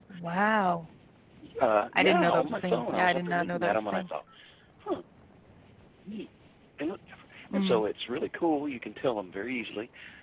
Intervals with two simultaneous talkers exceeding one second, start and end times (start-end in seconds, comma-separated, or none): 1.9-4.0